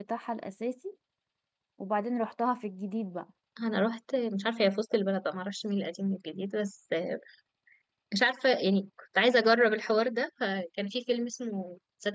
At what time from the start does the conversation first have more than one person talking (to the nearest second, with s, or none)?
none